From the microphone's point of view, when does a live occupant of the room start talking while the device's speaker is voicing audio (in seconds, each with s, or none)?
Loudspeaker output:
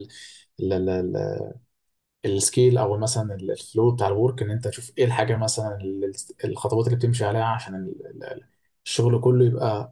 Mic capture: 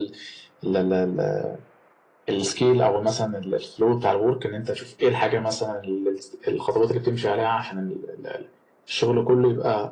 none